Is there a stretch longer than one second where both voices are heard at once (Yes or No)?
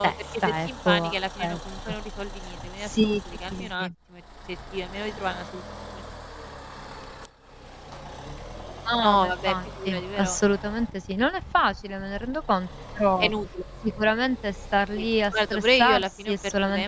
Yes